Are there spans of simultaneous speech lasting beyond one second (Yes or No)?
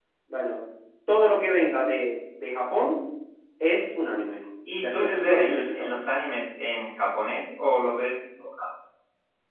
Yes